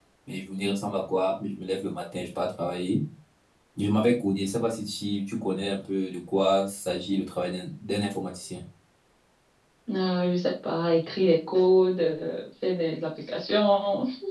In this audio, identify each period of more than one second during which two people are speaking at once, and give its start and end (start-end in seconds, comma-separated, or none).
none